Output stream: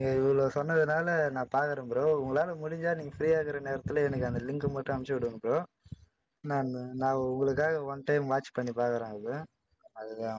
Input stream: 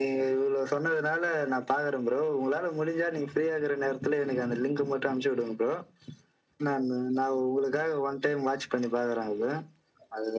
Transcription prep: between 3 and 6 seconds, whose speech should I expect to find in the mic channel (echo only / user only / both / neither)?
echo only